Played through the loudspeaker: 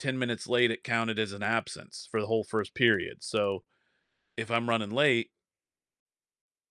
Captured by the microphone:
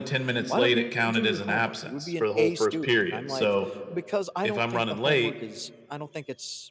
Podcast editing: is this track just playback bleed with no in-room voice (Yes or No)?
No